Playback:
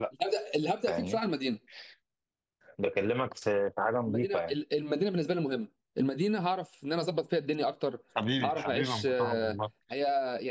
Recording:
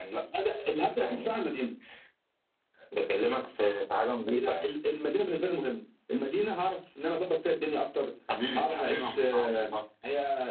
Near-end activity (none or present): none